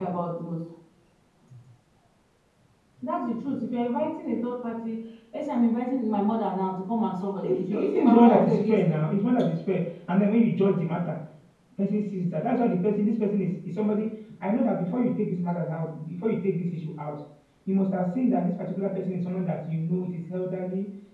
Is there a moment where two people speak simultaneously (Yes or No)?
Yes